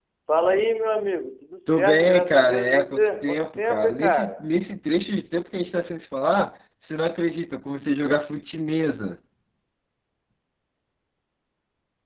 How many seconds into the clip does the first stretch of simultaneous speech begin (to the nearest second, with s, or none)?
2 s